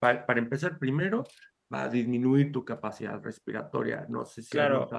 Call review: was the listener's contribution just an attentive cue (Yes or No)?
No